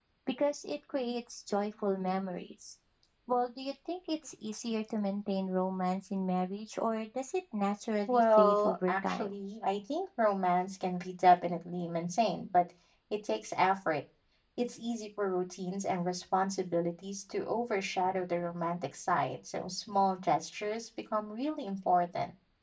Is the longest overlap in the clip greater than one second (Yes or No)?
Yes